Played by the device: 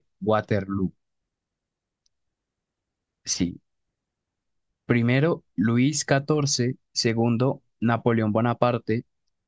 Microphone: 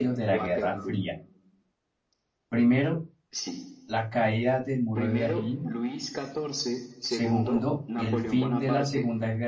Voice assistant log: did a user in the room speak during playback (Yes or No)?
Yes